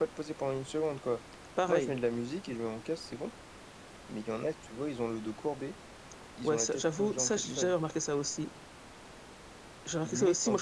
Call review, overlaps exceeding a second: present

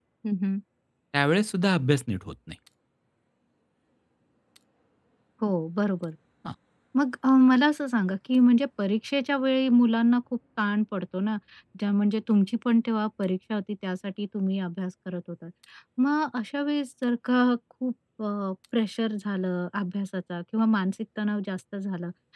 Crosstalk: none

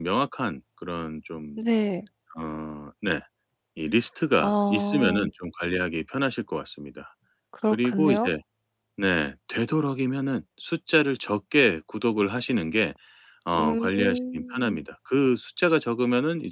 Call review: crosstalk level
present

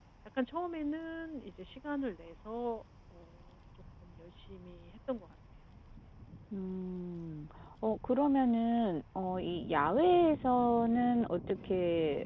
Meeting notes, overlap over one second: none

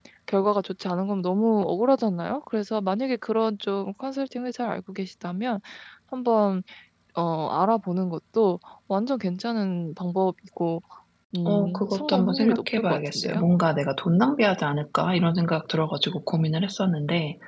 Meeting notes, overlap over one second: present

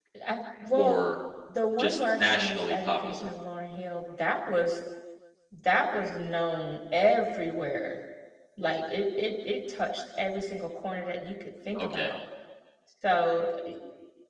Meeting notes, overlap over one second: present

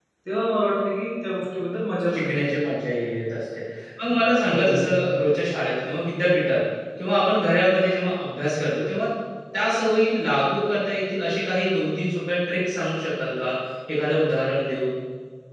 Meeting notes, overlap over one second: none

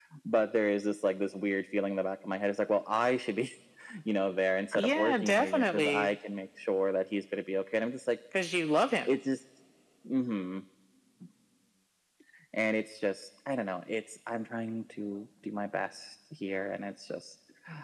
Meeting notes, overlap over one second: present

